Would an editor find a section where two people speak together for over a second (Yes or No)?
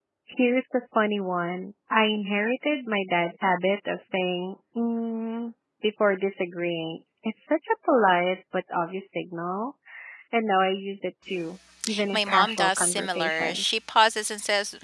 Yes